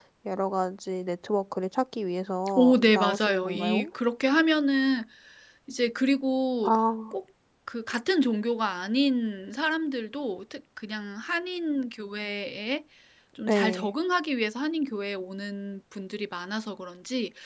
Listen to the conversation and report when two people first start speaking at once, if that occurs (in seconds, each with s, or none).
2.6 s